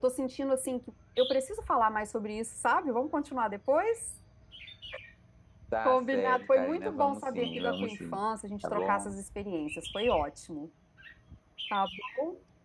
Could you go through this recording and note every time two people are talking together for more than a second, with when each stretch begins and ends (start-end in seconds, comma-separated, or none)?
5.8-8.2